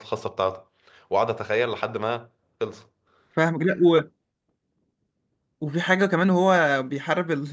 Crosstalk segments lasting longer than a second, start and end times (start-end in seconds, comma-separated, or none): none